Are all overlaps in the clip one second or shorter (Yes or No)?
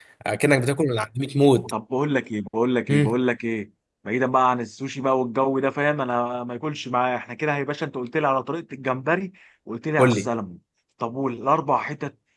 Yes